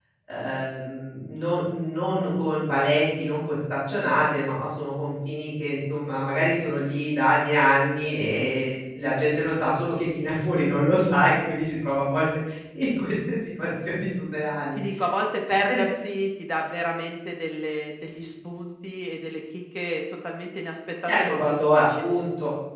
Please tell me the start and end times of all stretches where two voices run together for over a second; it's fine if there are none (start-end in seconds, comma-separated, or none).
21.1-22.3